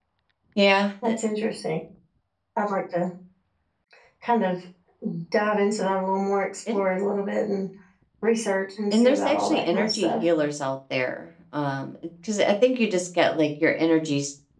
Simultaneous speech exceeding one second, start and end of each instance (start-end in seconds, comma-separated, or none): 8.9-10.1